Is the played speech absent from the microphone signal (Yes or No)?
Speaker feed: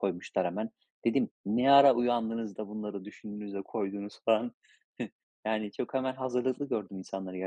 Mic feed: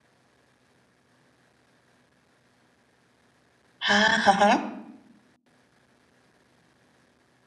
Yes